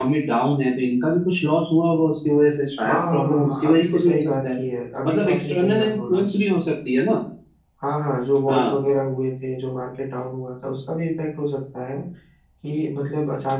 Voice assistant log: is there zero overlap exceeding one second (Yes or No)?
No